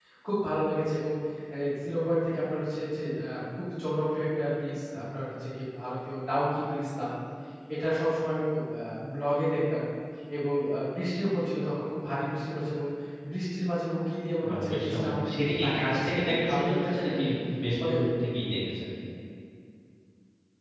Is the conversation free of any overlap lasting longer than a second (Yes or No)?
No